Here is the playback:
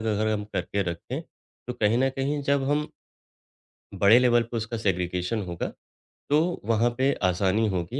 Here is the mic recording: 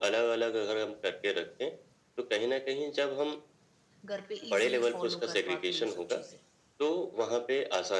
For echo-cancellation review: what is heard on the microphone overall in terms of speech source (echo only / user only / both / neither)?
both